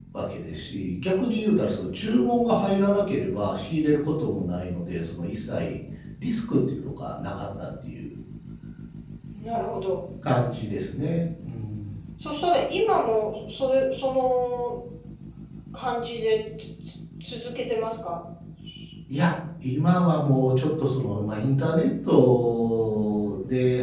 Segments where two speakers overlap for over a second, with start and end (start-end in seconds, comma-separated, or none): none